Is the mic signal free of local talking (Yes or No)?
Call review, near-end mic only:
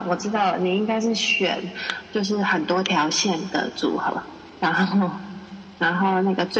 Yes